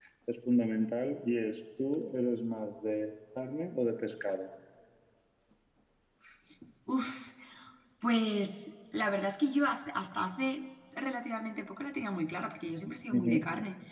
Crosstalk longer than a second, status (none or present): none